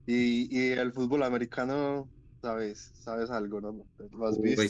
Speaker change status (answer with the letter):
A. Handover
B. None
A